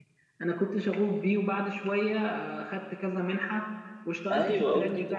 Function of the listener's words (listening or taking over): taking over